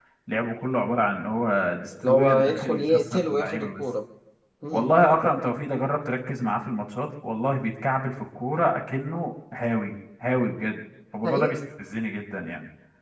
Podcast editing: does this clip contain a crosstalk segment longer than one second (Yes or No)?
Yes